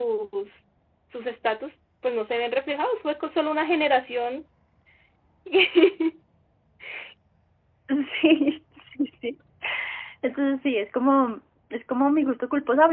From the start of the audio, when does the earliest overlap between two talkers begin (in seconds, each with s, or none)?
none